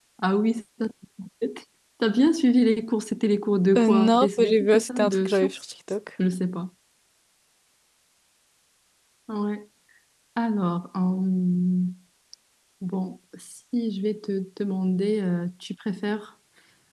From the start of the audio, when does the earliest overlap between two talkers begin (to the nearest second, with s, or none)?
4 s